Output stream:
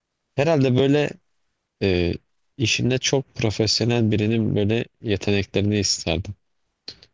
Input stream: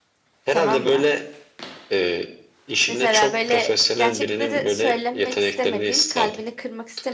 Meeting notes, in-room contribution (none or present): present